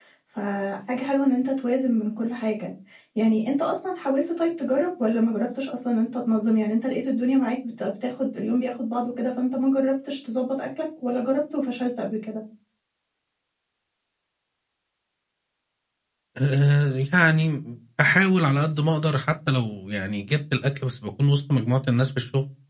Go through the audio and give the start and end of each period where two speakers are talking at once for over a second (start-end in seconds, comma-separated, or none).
none